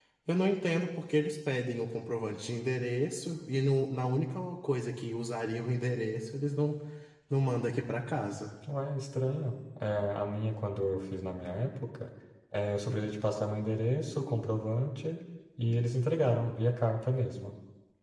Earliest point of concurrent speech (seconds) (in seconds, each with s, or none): none